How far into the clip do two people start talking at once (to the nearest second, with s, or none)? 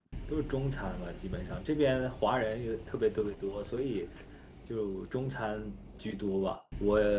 none